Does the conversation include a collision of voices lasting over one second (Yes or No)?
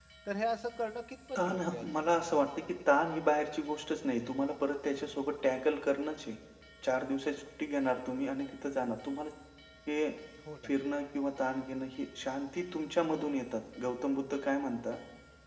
Yes